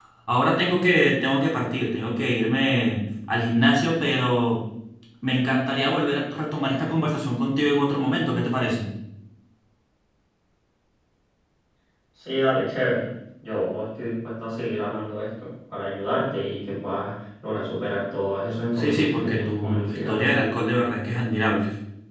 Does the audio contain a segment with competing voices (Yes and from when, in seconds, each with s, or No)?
Yes, from 18.8 s